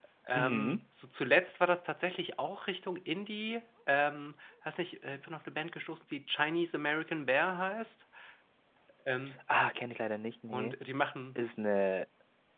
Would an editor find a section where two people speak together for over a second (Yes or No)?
No